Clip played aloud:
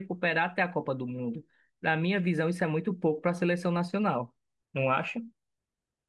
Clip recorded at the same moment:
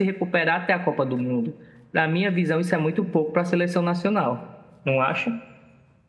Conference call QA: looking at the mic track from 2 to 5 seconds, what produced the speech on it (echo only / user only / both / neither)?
echo only